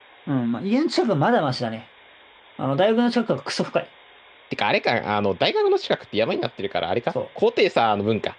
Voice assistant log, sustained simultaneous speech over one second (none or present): none